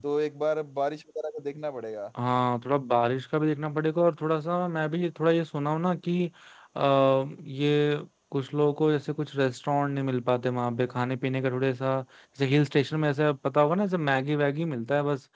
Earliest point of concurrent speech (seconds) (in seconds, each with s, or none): none